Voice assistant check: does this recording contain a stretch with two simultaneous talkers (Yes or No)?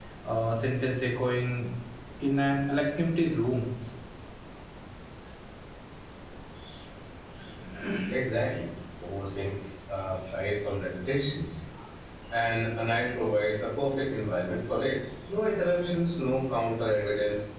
No